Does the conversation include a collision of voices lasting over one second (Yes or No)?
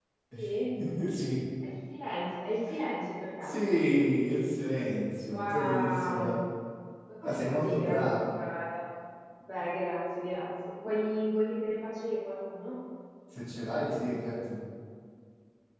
Yes